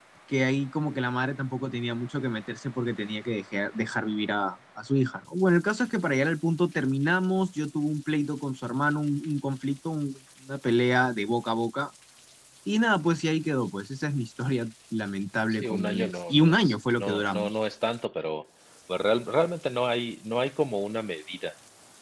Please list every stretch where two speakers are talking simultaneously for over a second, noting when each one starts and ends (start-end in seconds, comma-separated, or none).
15.5-17.5